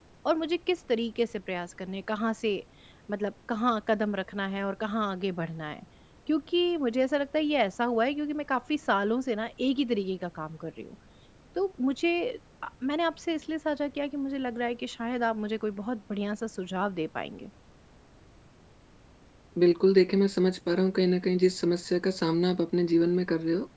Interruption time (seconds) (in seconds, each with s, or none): none